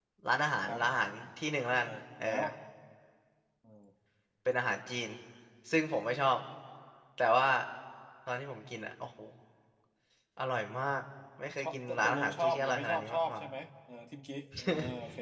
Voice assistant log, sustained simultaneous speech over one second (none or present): present